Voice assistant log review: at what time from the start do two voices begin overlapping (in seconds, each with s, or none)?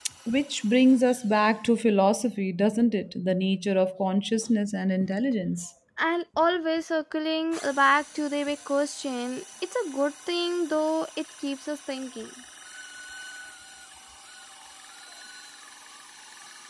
none